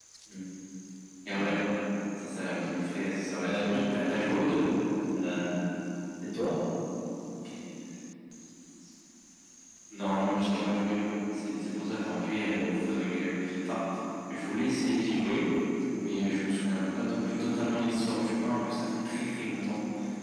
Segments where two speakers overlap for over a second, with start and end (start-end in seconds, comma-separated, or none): 3.4-4.6